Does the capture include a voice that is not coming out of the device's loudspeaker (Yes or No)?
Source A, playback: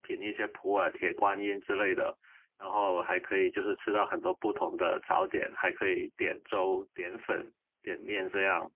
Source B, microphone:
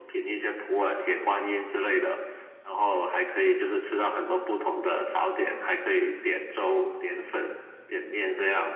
No